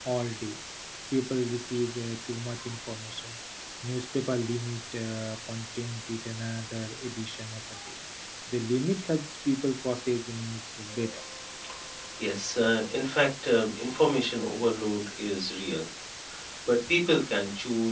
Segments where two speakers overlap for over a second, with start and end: none

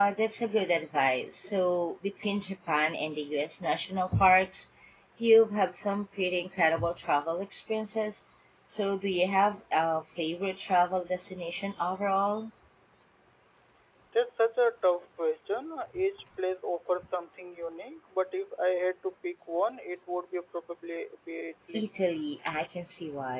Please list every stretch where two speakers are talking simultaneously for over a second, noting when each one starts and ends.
none

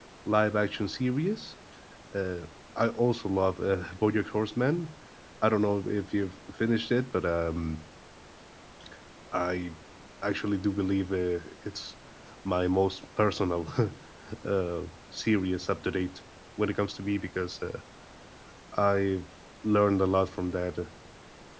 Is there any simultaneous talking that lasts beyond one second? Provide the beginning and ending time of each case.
none

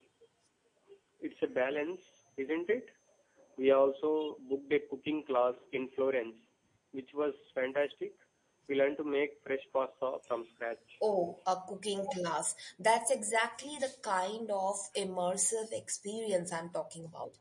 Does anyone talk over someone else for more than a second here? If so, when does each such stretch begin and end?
none

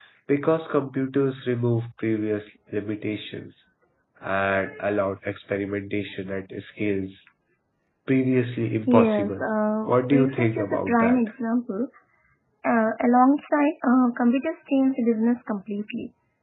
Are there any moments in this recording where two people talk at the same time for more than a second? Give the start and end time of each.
9.9-11.2

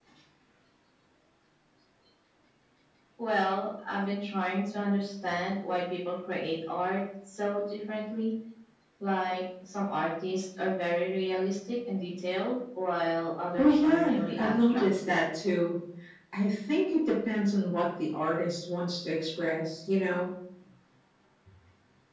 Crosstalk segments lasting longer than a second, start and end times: 13.6-14.8

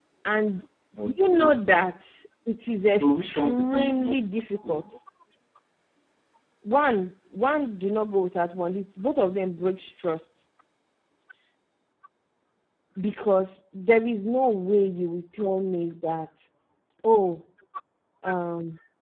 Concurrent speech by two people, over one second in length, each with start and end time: 2.9-4.1

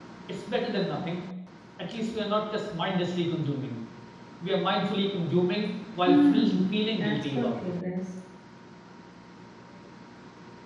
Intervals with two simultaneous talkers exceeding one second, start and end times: 6.1-7.7

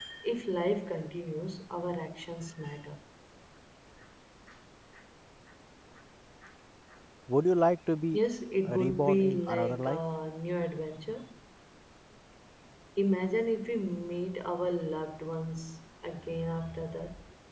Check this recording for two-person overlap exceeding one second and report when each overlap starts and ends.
8.7-10.0

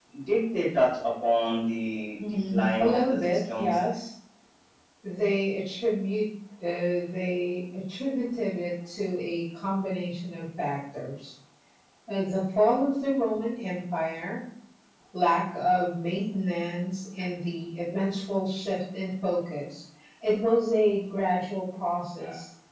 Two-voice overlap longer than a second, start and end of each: 2.5-3.8

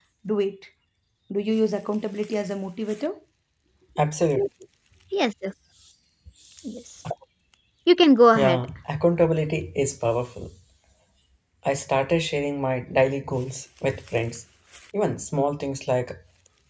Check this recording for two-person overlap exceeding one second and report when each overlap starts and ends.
none

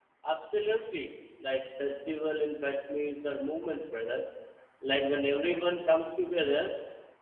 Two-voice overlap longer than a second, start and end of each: none

